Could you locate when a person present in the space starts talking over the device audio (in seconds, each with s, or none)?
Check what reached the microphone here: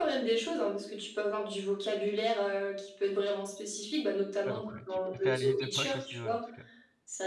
4.4 s